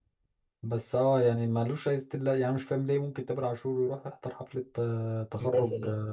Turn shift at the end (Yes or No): No